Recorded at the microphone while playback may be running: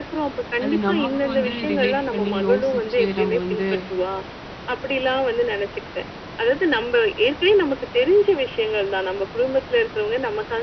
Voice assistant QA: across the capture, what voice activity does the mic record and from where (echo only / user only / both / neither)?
both